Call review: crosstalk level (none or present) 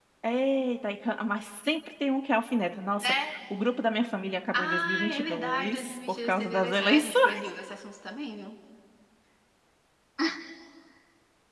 present